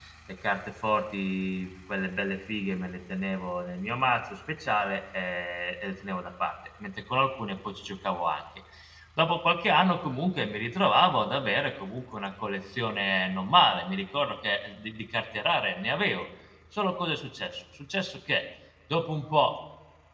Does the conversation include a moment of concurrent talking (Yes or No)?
No